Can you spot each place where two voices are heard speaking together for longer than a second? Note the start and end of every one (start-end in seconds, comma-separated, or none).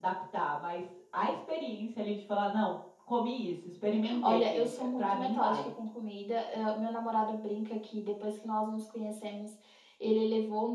4.2-5.7